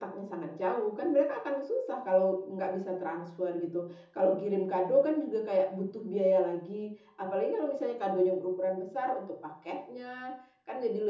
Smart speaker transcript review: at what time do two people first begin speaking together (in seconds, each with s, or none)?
none